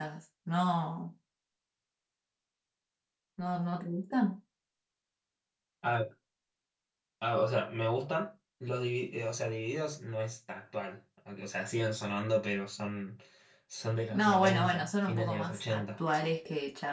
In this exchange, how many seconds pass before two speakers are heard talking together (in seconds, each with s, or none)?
14.1 s